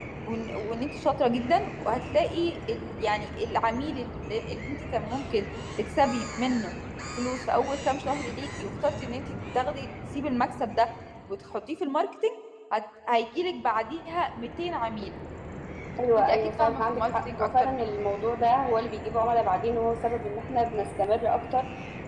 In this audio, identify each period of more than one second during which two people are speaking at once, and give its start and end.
16.2-17.8

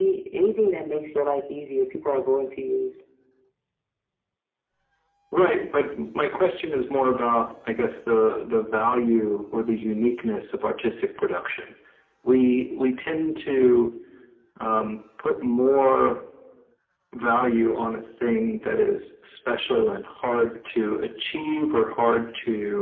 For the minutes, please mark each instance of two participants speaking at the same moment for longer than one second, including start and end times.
none

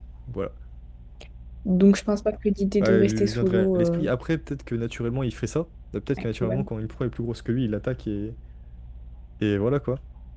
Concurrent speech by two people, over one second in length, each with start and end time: 2.8-4.1

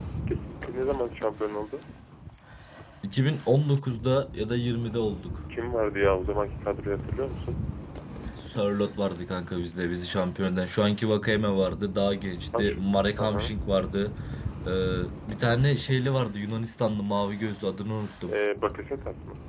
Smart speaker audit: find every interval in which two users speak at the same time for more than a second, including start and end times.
none

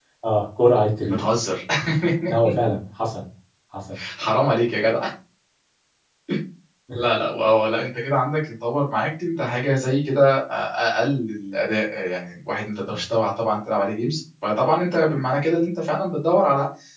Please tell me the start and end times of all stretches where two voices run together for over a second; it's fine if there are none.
none

